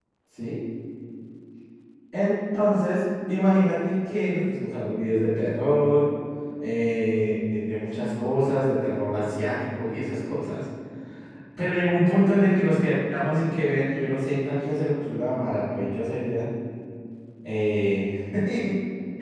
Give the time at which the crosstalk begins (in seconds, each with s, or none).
none